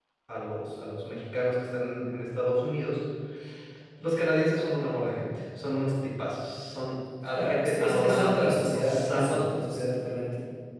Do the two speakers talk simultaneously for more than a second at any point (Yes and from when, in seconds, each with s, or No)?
Yes, from 7.3 s